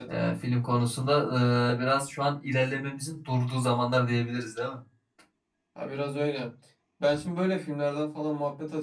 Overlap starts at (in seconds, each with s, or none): none